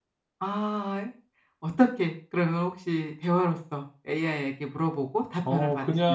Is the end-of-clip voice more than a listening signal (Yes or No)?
Yes